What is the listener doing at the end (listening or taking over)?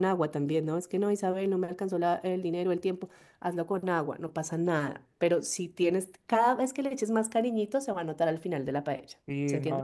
taking over